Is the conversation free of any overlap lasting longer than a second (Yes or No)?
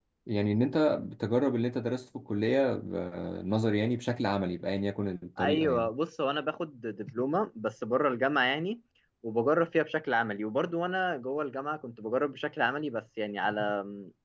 Yes